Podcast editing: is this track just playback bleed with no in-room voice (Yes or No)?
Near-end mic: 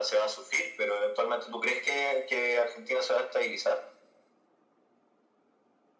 Yes